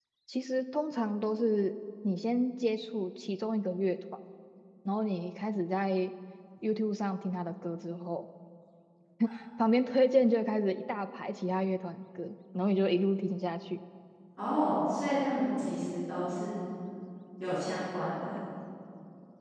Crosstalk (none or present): none